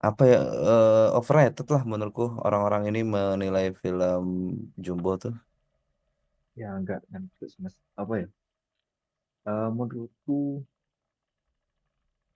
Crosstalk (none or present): none